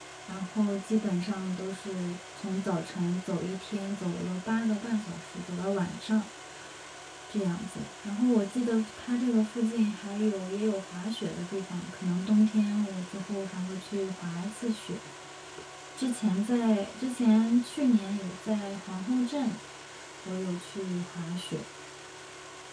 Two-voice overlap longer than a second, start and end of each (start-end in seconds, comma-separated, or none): none